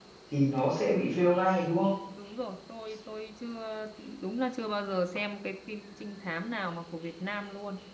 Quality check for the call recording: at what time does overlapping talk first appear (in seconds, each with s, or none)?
none